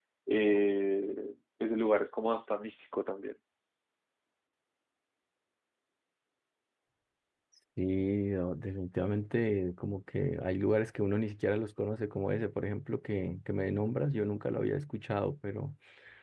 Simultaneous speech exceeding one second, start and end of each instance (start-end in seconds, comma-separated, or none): none